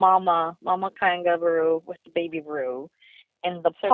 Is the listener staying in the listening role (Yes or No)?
Yes